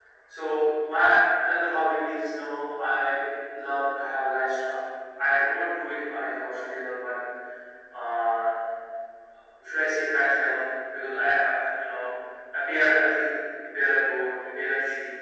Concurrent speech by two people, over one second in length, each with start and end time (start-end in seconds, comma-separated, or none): none